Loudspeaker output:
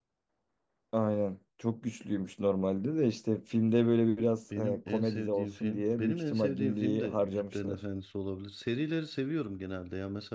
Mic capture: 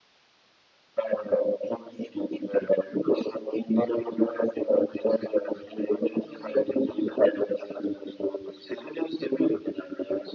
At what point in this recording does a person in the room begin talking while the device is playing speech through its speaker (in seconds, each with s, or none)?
none